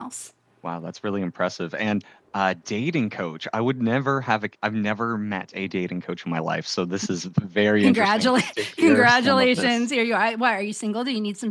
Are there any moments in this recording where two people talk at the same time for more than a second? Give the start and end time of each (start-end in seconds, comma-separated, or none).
7.8-9.8